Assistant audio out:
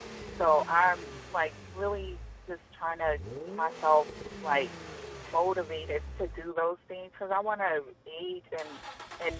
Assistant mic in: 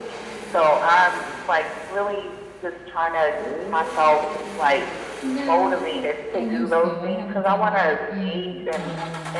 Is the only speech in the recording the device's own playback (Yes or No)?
No